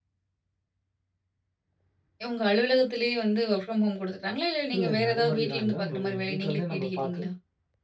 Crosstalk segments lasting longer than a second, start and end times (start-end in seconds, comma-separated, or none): 4.8-7.2